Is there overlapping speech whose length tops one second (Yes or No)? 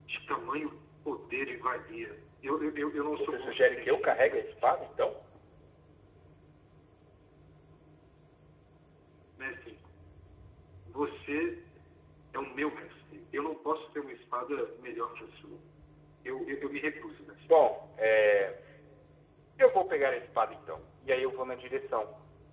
Yes